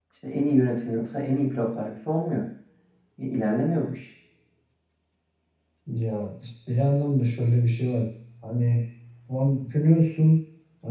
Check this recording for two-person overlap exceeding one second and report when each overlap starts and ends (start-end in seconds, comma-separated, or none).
none